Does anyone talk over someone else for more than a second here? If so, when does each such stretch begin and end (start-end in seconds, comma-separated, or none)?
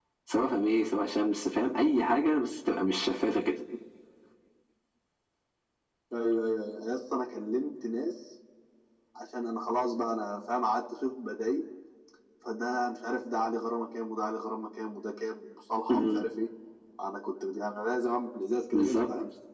none